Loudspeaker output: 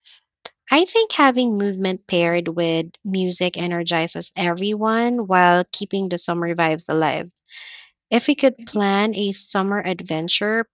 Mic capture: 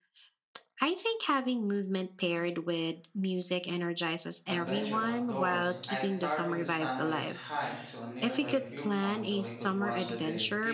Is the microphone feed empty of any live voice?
No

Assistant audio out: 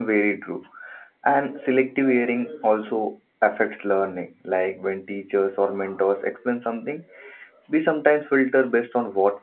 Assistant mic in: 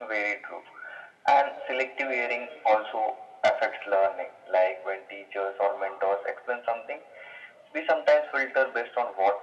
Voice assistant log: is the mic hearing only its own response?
Yes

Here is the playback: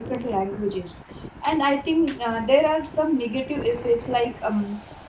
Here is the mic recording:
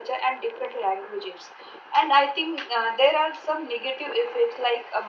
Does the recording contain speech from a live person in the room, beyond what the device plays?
No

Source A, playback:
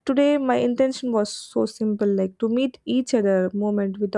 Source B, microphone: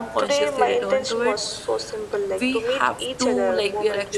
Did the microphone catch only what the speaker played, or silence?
No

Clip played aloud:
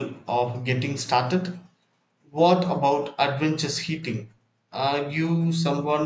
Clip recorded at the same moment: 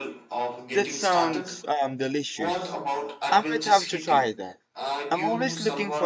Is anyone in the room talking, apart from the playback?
Yes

